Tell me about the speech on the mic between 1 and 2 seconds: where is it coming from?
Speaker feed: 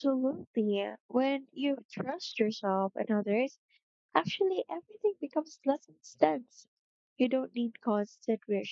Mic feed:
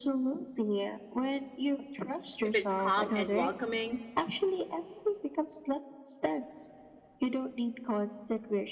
echo only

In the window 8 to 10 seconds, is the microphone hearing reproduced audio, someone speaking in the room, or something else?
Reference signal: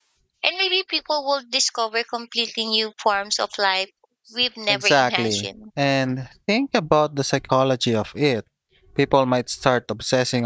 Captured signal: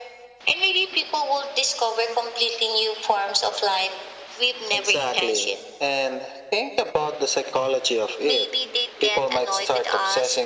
both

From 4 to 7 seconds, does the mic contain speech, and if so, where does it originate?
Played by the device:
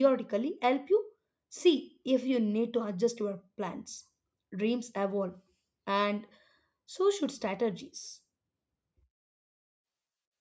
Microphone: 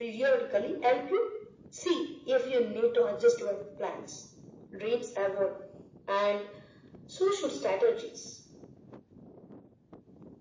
echo only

